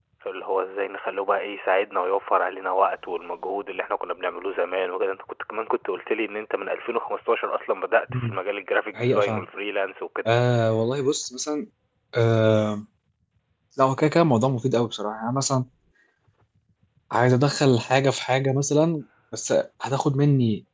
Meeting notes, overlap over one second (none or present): none